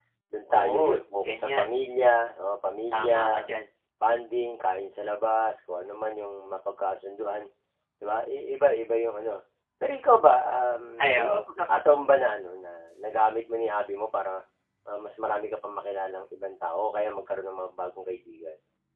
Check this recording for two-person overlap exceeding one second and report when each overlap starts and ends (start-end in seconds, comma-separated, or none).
0.5-1.7